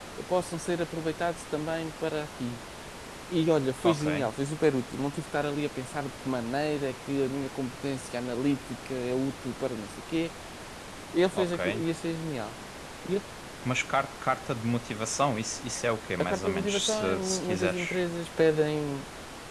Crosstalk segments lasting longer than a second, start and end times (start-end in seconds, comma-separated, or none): 16.2-18.0